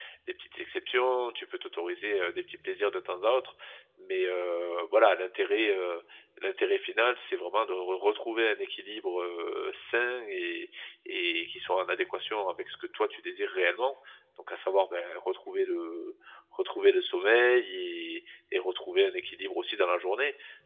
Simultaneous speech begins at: none

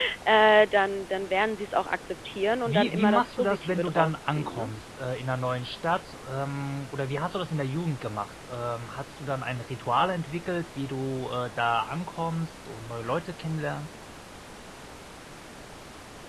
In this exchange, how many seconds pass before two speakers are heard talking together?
2.7 s

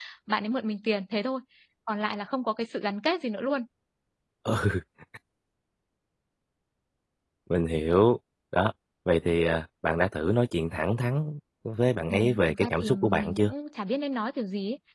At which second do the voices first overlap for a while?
12.1 s

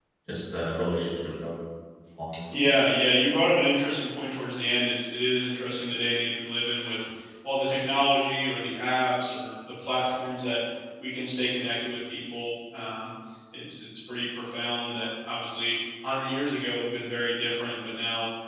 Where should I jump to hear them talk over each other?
none

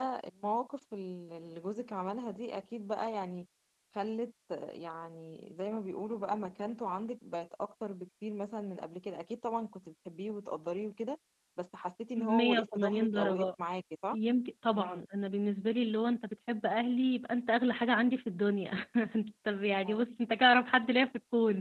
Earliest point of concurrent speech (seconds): 12.2 s

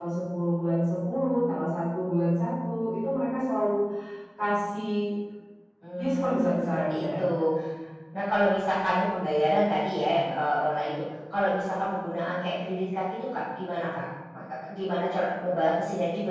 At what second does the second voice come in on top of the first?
6.0 s

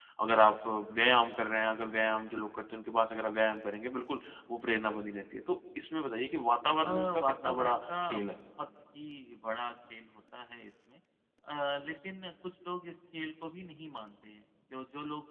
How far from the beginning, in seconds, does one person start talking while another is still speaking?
6.8 s

